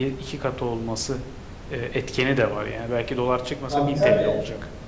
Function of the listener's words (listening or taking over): taking over